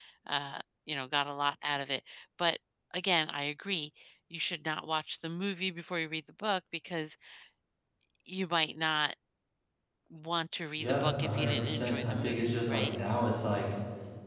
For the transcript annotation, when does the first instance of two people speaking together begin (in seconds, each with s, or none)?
10.8 s